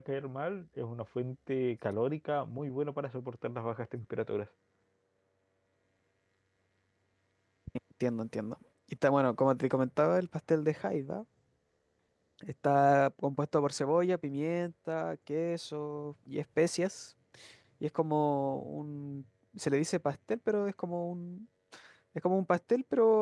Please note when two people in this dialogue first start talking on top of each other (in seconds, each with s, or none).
none